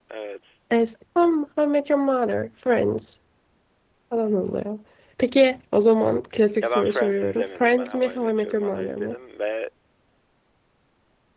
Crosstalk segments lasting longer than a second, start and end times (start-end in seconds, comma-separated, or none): 6.6-9.1